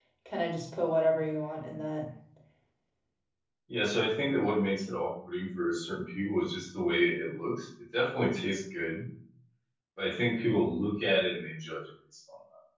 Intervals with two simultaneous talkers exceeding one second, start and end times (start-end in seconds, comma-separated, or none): none